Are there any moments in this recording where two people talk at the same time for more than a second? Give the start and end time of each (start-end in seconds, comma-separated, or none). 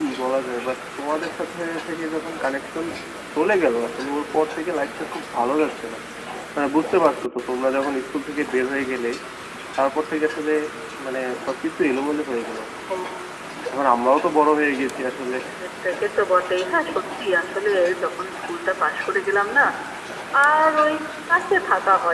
none